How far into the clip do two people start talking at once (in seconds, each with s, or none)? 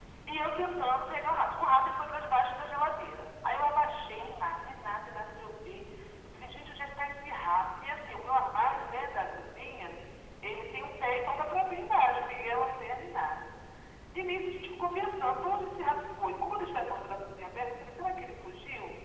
none